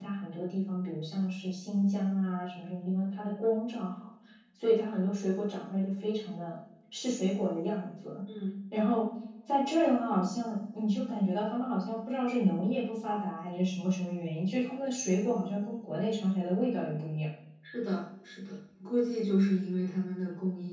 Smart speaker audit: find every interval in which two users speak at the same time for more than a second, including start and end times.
none

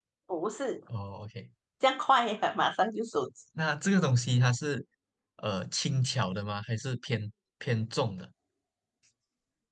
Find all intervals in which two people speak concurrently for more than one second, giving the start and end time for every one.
none

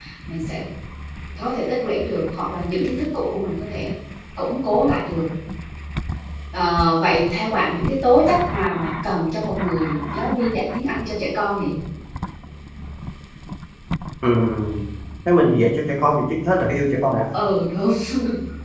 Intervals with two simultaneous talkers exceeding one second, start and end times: none

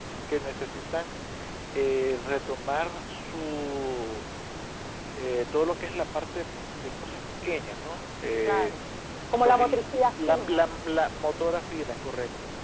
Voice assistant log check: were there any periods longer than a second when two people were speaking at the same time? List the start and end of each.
9.4-10.7

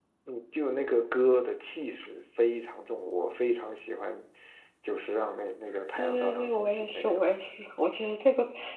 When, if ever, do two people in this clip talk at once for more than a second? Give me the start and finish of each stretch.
6.0-7.2

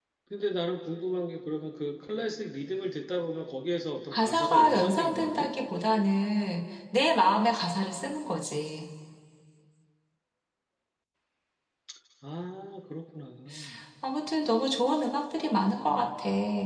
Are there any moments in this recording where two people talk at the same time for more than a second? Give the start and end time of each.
4.1-5.5

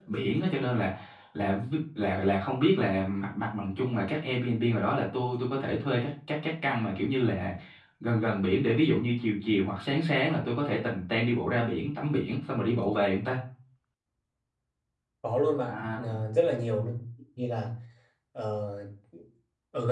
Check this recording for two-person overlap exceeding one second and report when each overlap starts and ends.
none

